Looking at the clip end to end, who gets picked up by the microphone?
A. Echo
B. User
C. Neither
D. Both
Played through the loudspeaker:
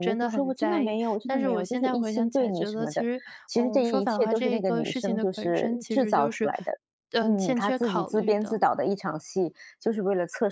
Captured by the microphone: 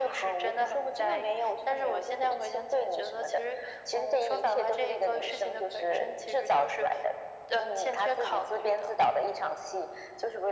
A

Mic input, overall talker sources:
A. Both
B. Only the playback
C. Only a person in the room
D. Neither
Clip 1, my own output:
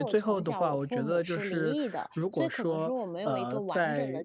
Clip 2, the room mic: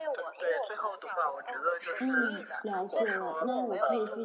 A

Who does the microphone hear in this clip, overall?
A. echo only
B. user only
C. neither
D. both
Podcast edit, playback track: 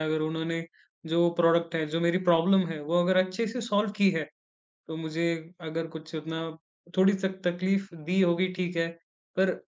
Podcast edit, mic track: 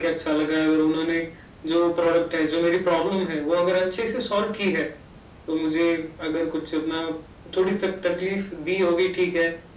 A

